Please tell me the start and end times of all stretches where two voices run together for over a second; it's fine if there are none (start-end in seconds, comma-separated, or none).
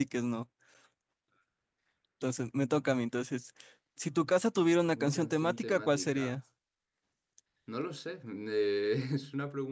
5.0-6.3